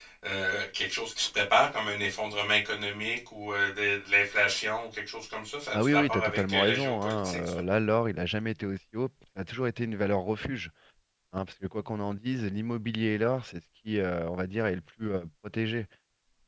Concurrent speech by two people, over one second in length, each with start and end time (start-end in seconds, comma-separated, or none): 5.7-7.6